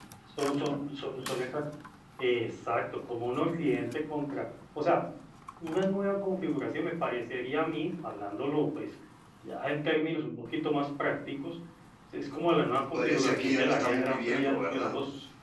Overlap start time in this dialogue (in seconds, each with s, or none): 12.9 s